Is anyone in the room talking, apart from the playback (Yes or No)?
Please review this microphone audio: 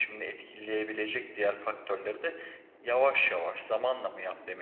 Yes